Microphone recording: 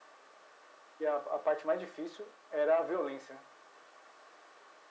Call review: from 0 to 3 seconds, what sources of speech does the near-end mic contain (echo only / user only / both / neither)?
echo only